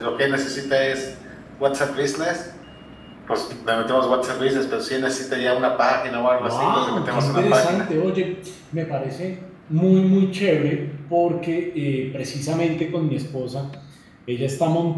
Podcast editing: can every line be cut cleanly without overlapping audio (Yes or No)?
No